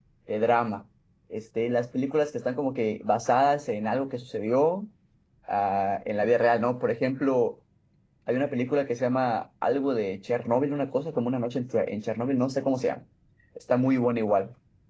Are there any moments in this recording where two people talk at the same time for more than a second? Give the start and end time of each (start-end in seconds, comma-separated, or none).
none